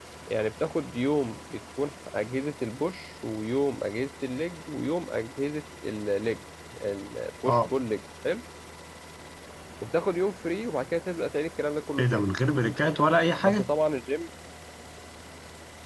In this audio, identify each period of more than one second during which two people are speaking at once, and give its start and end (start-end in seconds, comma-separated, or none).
none